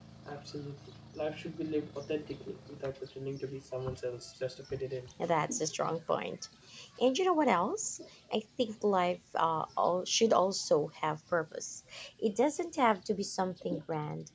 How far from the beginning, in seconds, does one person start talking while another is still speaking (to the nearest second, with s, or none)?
none